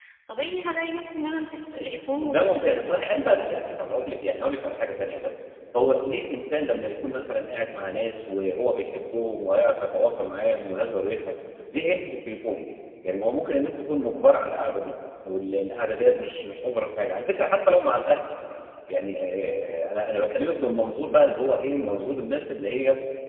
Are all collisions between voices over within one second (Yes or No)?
No